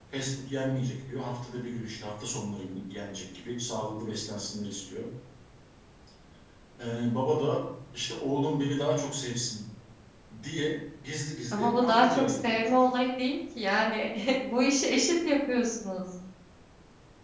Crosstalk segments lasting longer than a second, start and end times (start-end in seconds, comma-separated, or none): 11.5-13.0